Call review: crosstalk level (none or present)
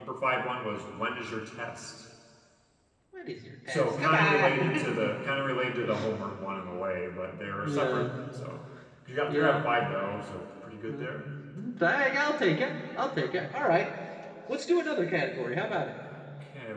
present